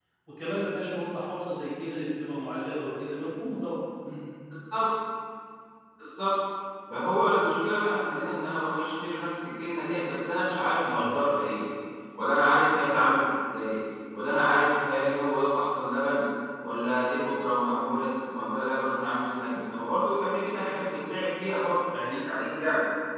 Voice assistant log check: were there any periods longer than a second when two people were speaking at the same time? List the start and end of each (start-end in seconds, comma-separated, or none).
none